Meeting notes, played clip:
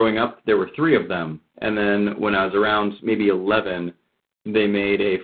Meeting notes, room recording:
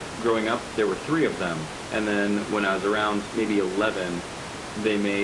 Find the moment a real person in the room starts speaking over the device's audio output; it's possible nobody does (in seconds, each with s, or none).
none